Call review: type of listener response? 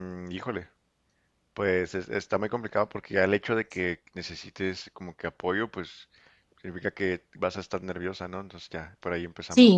taking over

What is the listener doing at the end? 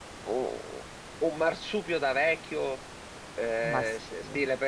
listening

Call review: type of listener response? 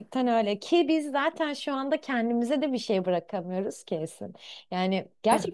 listening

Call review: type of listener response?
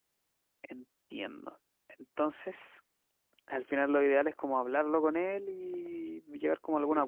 taking over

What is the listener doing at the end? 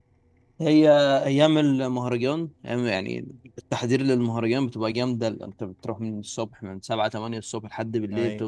listening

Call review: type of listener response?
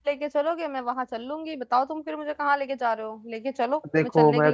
taking over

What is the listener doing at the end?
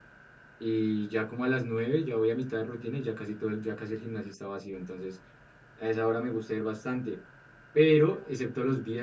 listening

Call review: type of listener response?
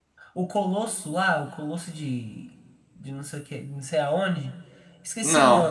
listening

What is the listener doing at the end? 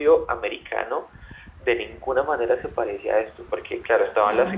listening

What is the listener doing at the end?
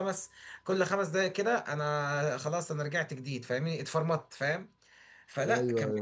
listening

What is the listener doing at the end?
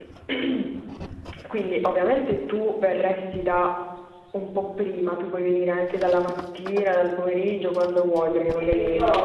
taking over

